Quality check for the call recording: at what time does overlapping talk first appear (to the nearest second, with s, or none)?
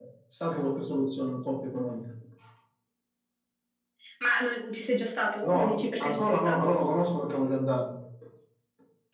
5 s